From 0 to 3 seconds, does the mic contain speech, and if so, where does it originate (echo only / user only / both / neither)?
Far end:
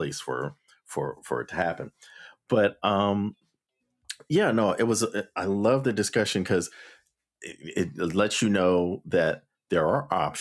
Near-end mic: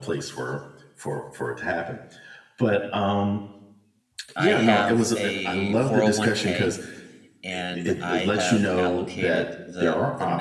echo only